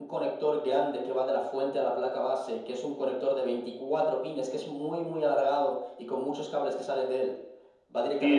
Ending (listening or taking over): taking over